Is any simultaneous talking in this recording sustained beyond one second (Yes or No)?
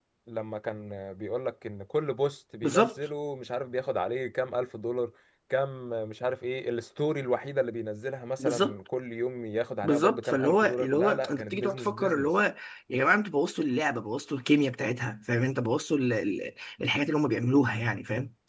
Yes